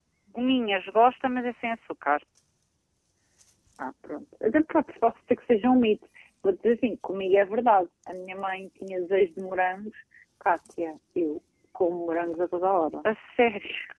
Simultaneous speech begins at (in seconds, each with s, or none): none